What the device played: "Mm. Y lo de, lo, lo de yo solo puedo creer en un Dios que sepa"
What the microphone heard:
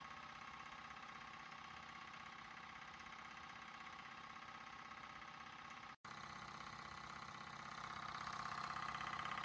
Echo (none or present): none